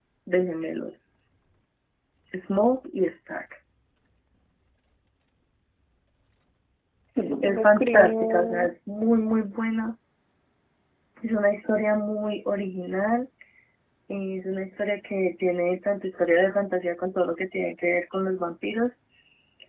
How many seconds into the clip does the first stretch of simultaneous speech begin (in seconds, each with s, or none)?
7.4 s